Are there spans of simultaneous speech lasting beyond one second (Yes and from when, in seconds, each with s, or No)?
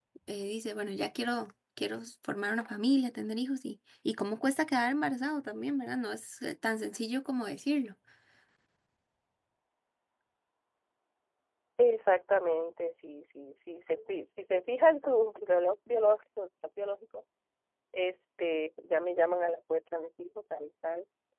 No